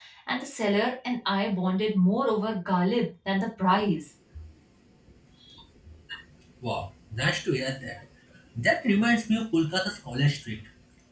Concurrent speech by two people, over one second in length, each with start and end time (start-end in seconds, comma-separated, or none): none